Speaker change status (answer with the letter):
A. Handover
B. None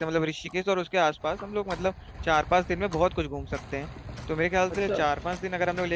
B